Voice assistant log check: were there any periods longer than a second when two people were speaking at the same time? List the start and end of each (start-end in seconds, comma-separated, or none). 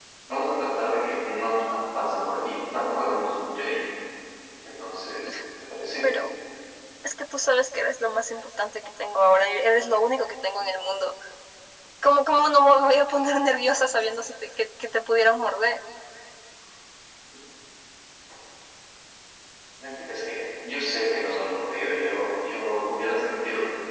none